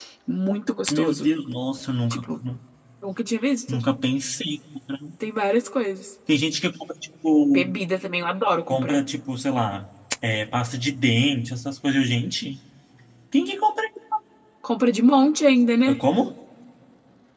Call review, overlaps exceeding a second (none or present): none